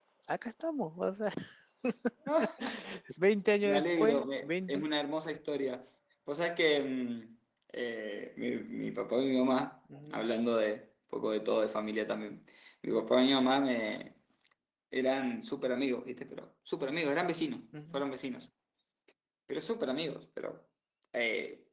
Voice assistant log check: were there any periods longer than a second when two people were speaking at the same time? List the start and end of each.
3.6-4.8

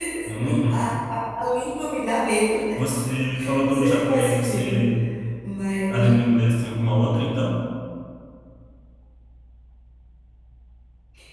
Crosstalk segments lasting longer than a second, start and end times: 3.6-4.8

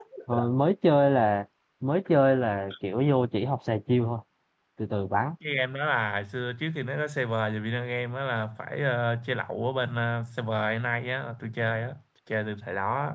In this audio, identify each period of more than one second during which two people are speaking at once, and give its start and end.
none

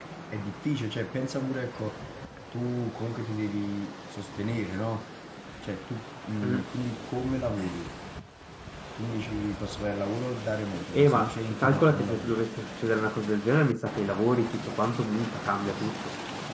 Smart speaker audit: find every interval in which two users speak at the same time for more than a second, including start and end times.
10.9-12.4

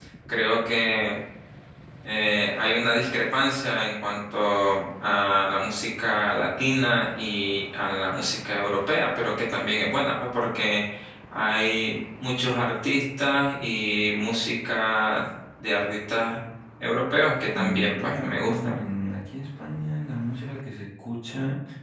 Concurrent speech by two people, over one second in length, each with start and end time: 17.6-18.8

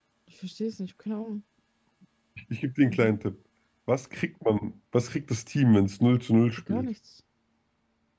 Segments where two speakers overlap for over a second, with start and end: none

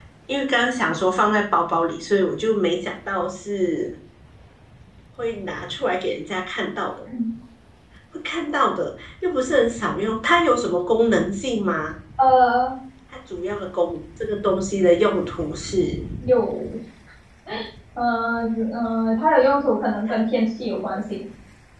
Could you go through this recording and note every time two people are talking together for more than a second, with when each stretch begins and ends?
none

